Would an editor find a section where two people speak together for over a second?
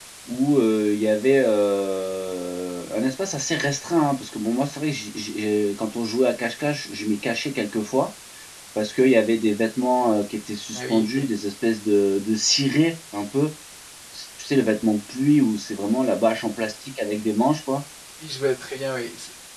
No

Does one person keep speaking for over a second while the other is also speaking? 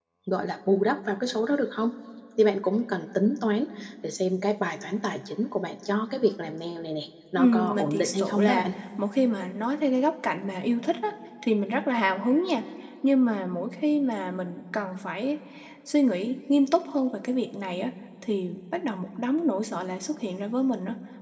Yes, from 7.4 s

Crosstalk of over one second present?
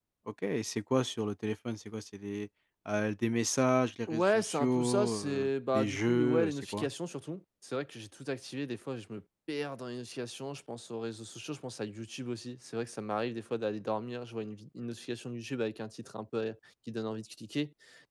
Yes, from 4.1 s

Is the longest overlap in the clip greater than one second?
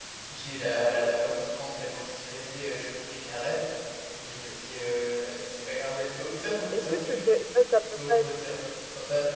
No

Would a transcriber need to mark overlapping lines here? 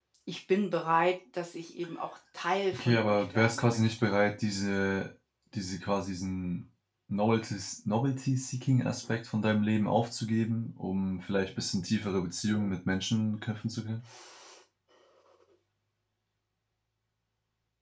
Yes, from 2.7 s

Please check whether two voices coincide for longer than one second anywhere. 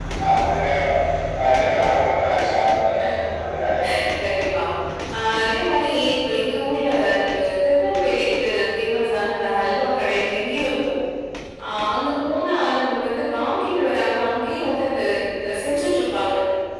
No

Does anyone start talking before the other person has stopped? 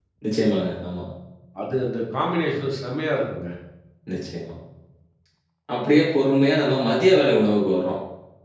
No

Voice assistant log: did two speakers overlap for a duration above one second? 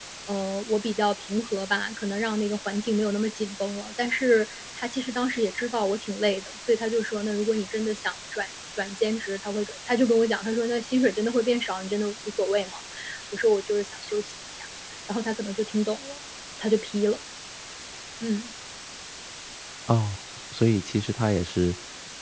No

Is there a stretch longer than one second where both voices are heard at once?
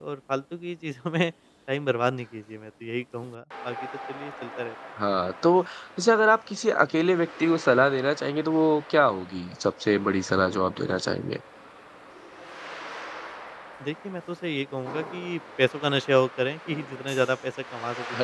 No

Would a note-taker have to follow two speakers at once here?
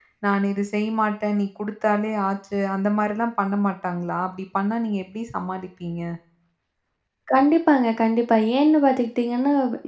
No

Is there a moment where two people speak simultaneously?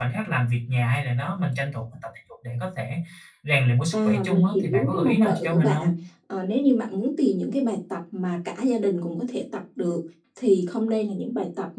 Yes, from 3.9 s

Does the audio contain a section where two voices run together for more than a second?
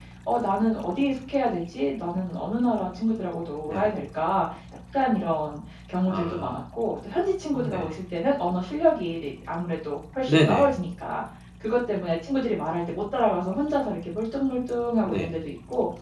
No

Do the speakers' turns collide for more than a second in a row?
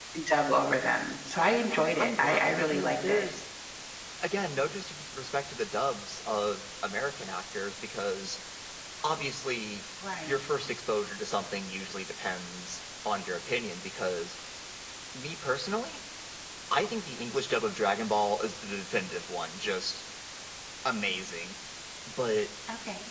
Yes, from 1.9 s

